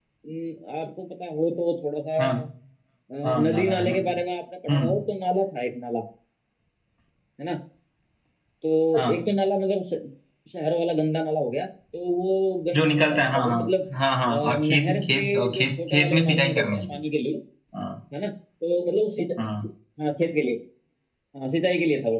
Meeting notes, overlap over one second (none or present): present